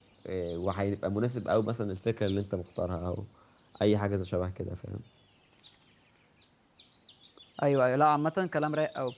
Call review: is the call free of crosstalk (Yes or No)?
Yes